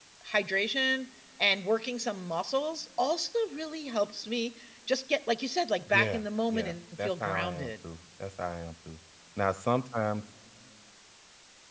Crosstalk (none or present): present